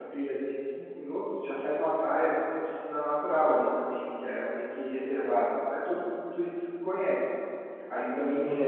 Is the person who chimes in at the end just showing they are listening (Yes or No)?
Yes